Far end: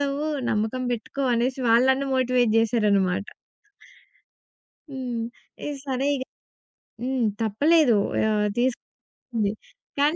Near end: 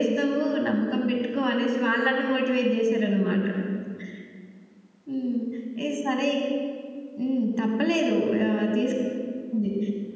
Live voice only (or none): none